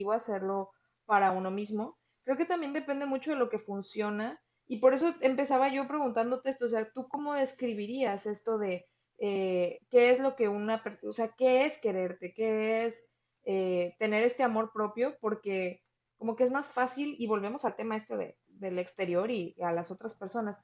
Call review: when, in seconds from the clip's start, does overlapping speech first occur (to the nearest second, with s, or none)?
none